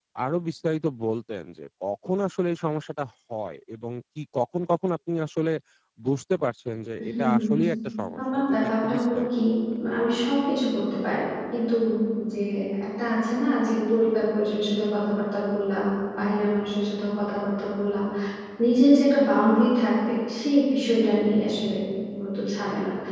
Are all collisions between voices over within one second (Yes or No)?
No